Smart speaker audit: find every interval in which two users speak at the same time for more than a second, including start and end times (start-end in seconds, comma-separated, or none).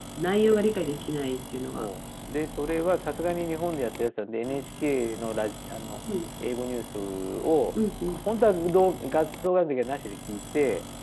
none